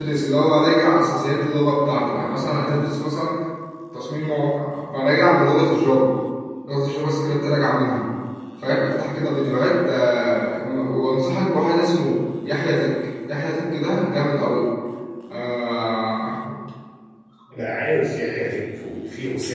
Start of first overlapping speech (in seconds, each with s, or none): none